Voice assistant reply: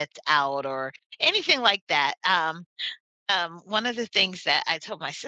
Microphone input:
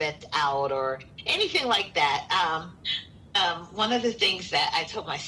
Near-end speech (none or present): none